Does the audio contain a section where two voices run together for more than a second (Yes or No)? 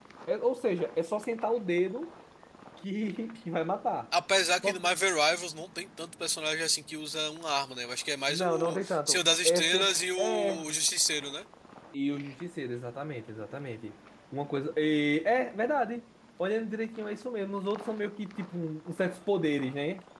Yes